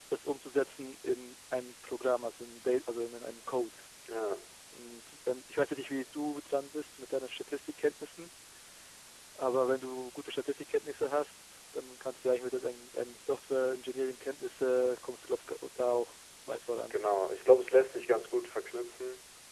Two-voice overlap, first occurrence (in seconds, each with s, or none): none